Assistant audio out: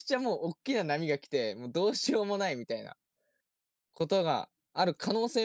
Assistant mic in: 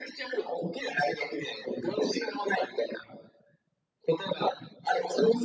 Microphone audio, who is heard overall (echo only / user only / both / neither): echo only